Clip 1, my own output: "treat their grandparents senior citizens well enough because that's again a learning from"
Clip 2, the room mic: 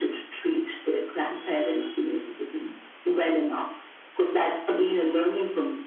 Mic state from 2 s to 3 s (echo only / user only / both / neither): echo only